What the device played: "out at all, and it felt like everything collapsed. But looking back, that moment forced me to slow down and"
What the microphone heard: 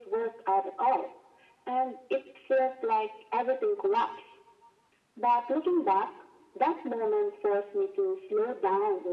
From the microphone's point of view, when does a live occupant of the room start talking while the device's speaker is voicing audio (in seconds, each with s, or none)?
none